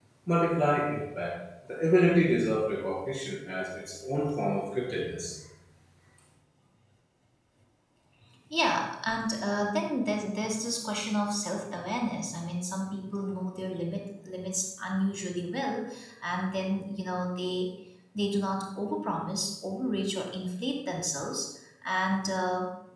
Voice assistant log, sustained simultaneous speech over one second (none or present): none